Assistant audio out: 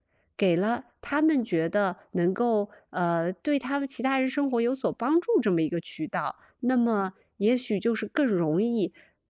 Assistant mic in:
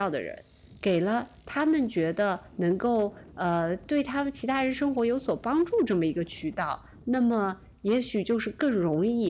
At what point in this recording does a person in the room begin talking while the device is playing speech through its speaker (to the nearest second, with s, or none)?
none